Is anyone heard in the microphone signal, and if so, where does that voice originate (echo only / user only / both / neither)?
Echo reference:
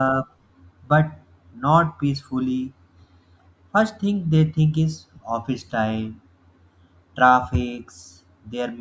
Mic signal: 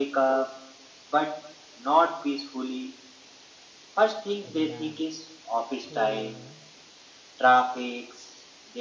both